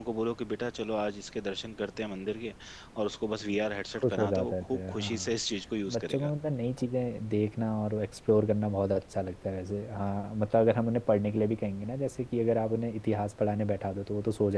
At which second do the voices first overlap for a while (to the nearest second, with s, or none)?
4 s